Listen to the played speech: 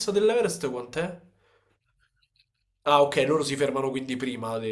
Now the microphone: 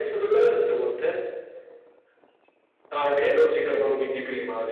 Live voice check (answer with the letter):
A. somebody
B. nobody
B